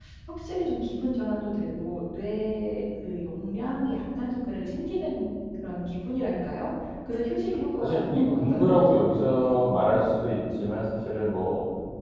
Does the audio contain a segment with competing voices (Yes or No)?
Yes